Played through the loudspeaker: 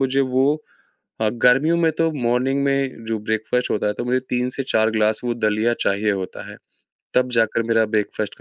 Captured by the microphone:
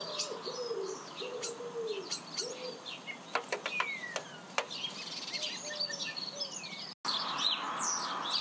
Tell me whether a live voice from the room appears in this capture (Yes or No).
No